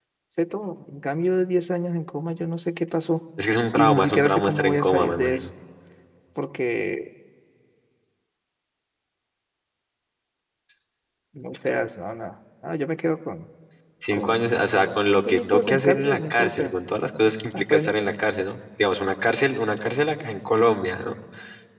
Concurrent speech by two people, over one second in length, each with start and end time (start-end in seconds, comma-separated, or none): 3.8-5.4, 14.1-16.7